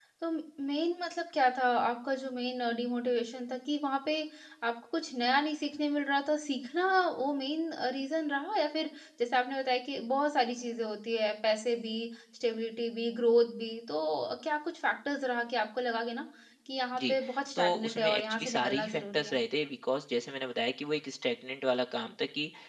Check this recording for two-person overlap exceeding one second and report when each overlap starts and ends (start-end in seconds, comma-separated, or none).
17.6-19.4